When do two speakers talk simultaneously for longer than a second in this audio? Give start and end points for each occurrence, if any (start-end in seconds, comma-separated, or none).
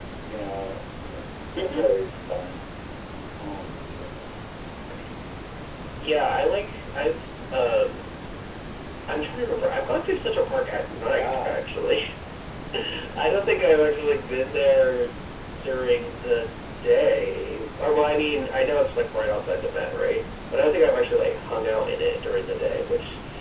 none